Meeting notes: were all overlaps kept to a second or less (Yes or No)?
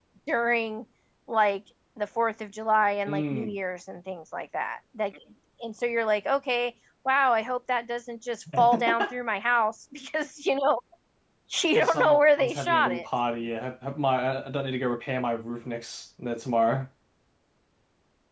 No